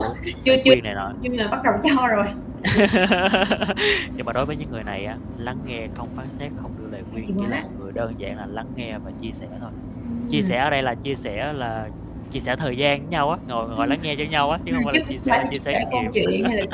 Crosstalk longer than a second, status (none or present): present